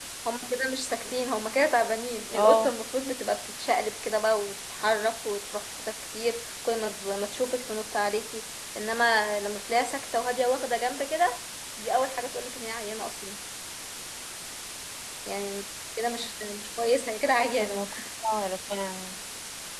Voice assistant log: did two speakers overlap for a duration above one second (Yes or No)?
No